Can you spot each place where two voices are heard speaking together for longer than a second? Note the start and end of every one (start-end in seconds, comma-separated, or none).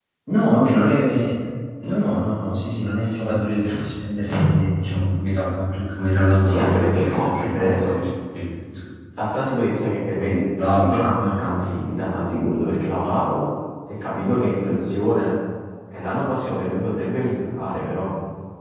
6.5-7.9, 10.1-11.6